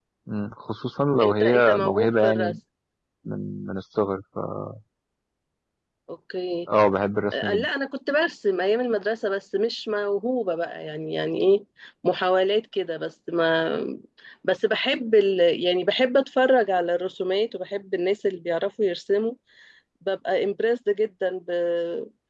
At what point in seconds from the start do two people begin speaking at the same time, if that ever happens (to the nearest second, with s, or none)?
1 s